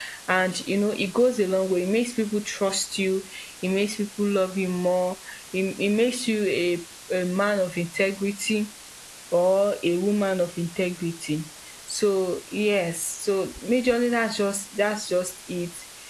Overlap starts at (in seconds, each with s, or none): none